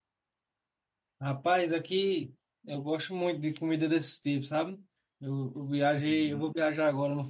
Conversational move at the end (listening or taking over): listening